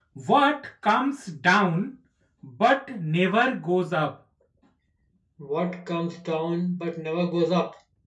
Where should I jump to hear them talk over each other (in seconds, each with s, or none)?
none